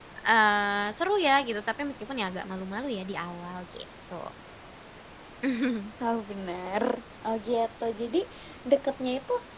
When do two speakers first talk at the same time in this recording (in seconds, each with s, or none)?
none